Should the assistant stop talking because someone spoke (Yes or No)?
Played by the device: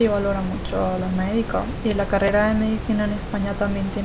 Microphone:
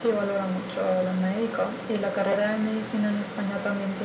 No